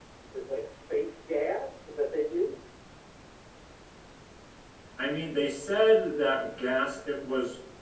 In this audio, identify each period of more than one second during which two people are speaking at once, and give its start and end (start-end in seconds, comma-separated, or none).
none